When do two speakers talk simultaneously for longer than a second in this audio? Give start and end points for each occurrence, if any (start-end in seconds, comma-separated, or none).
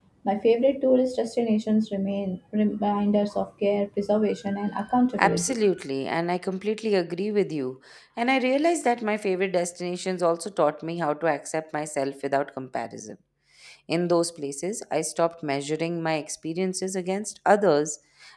none